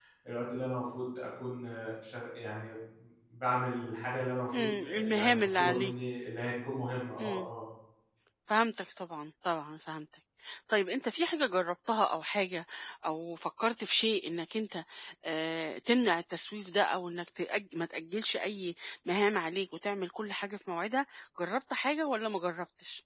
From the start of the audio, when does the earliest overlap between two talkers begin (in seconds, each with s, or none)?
4.5 s